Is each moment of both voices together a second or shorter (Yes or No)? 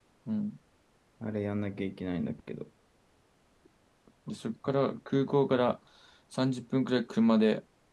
Yes